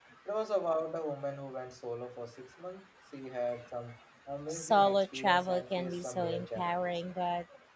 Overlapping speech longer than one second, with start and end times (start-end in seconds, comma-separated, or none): 4.5-7.0